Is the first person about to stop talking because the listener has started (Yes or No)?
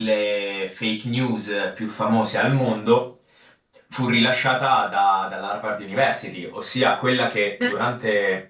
No